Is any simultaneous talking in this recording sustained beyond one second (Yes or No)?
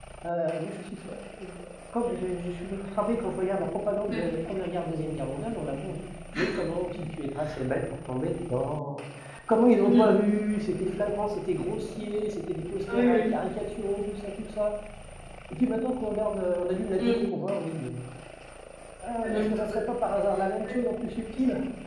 No